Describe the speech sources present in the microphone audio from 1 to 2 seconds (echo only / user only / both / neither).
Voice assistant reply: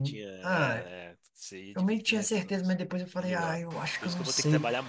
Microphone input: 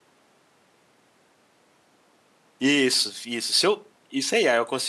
neither